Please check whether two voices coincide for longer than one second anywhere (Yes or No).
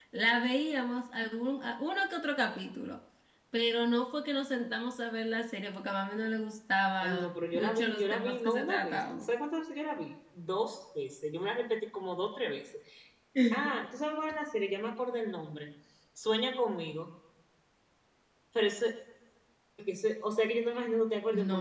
Yes